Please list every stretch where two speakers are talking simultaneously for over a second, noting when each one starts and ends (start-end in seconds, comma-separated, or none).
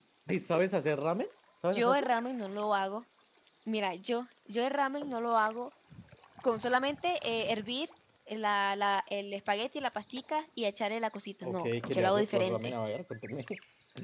11.4-12.7